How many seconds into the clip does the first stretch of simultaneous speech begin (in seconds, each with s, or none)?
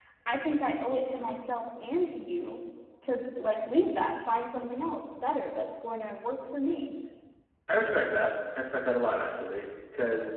none